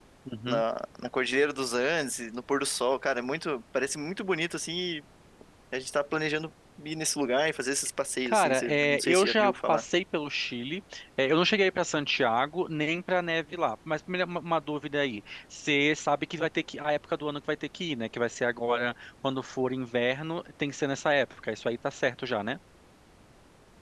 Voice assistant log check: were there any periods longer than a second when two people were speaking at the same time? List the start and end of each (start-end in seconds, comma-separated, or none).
8.3-9.8